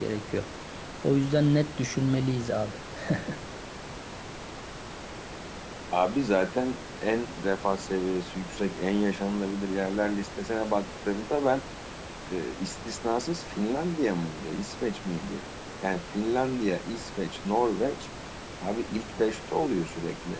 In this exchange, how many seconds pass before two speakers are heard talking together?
none

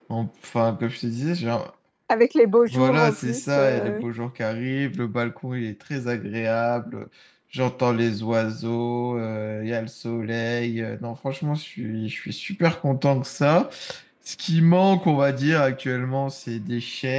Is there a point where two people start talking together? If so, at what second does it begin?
3 s

